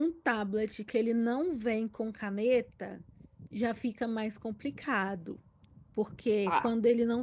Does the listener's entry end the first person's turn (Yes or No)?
No